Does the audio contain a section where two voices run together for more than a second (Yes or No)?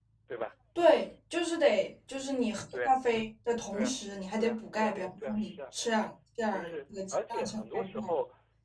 Yes